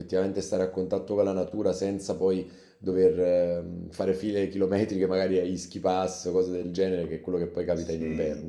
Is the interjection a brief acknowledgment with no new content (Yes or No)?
No